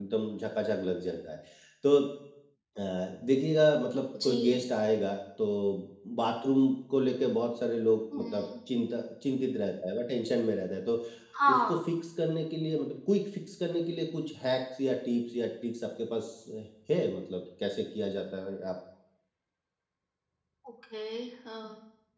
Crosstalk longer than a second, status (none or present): none